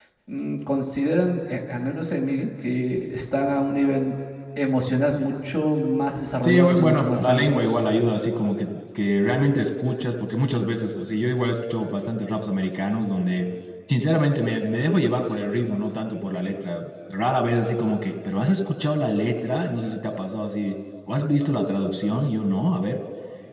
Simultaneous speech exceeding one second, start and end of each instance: 6.4-7.6

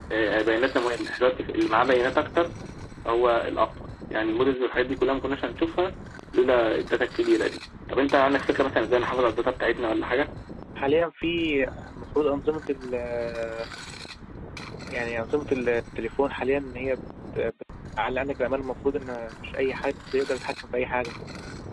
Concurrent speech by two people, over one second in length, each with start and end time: none

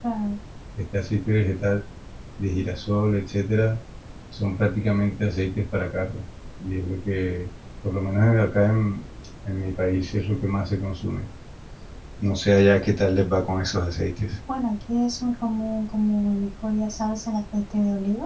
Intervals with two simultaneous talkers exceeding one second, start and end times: none

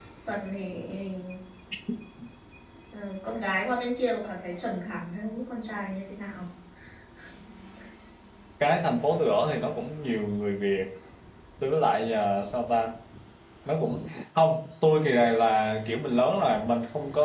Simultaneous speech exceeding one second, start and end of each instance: none

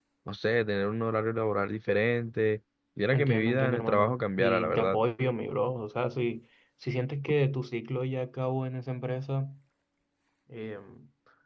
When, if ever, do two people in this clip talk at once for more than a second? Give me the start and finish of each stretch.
3.1-5.0

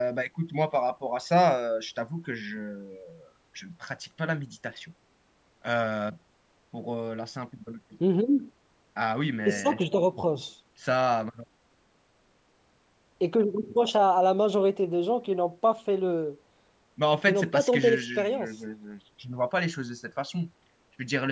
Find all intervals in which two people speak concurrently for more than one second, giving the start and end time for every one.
17.2-18.5

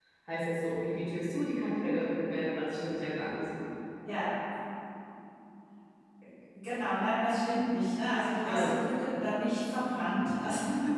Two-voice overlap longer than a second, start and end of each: none

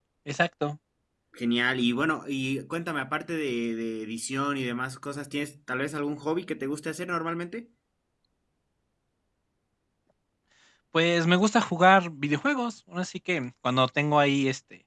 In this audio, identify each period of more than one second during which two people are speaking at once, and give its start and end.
none

